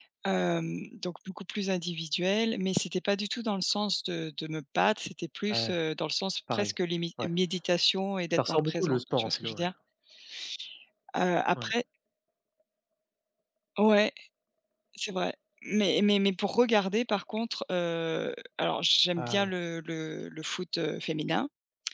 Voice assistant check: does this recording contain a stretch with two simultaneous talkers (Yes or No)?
Yes